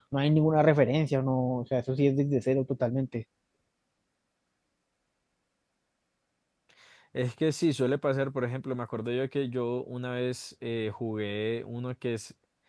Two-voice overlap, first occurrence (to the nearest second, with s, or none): none